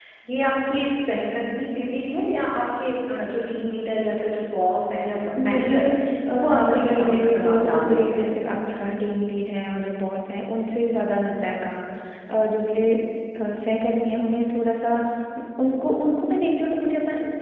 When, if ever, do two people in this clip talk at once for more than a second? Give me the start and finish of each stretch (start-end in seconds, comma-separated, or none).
6.3-8.3